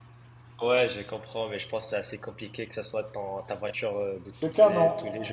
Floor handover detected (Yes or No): Yes